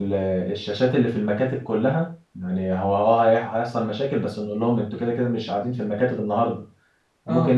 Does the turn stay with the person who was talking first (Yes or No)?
Yes